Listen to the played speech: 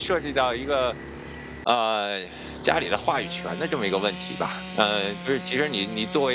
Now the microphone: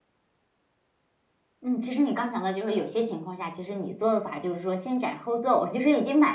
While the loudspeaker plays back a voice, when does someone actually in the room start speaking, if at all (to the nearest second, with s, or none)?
2 s